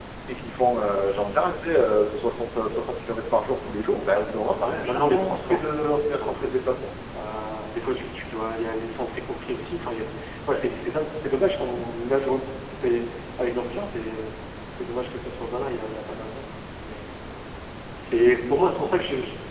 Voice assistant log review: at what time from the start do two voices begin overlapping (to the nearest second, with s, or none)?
5 s